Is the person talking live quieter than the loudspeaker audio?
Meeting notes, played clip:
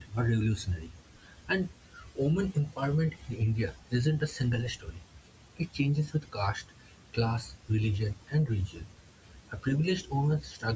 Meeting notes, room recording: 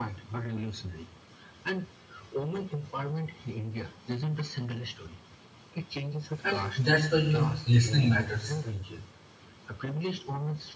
No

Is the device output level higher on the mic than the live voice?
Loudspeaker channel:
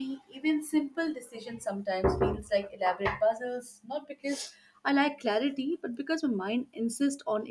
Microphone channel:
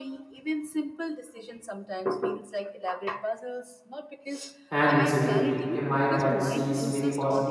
No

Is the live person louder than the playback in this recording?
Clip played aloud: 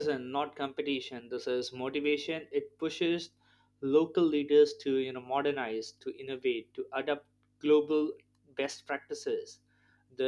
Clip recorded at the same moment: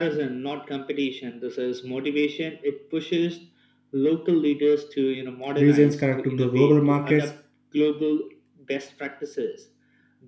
Yes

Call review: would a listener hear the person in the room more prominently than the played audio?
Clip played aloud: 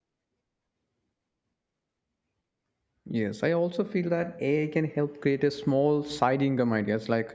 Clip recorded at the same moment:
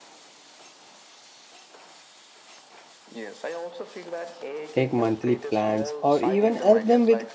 Yes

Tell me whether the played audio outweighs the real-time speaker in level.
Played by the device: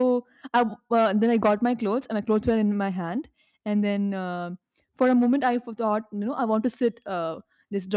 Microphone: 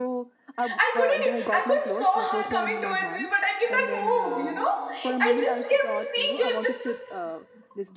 No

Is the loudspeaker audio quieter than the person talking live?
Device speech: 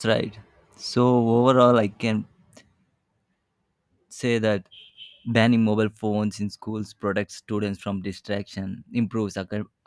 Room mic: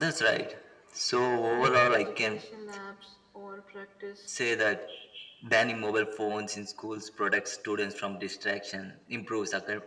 No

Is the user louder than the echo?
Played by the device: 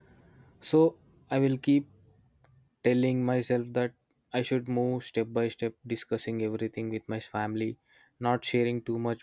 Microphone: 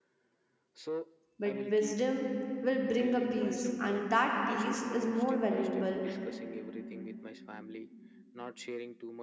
Yes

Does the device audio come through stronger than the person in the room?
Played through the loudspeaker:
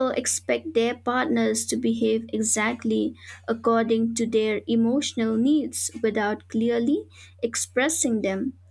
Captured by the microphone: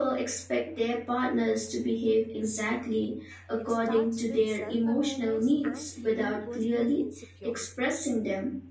Yes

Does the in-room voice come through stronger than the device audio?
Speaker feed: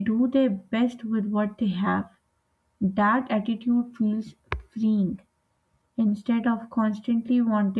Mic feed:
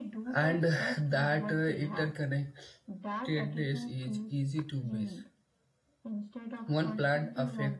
Yes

